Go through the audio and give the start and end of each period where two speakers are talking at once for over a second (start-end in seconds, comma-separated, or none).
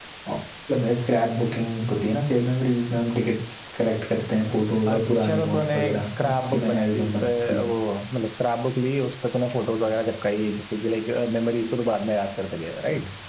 4.9-7.6